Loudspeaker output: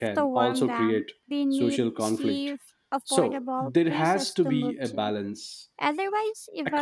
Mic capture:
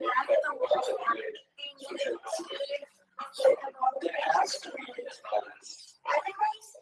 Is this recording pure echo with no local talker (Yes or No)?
Yes